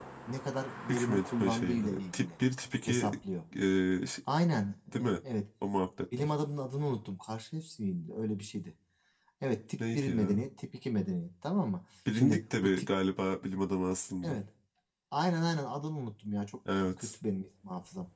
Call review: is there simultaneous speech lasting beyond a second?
Yes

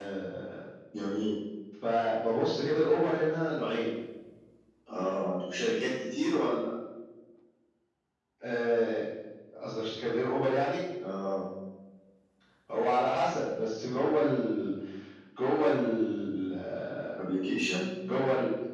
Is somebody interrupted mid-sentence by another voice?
No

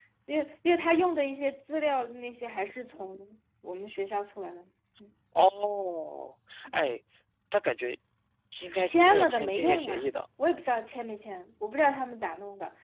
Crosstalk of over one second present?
Yes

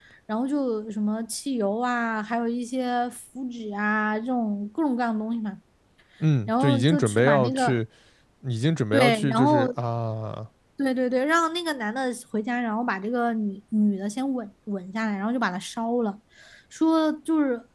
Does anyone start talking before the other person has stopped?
Yes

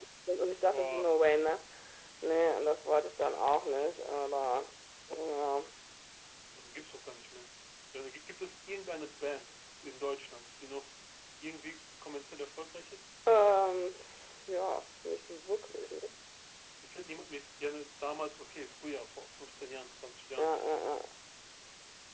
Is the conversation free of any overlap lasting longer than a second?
Yes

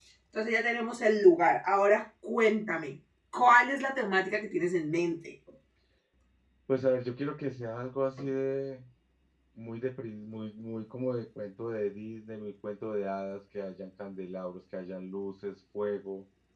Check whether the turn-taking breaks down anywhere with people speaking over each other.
No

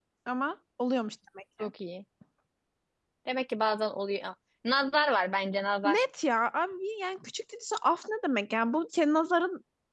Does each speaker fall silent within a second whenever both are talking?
Yes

